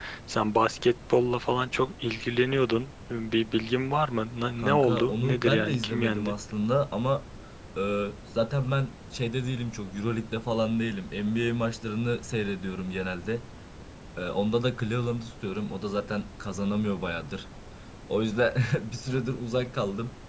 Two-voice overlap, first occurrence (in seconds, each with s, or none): 4.6 s